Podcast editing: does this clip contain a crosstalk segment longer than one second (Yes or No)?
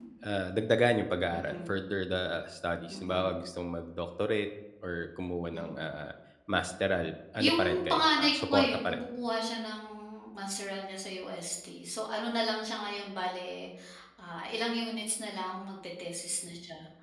Yes